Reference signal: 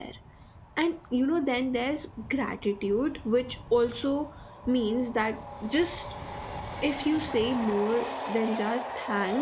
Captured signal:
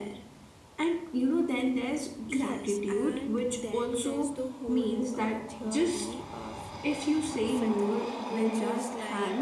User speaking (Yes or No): Yes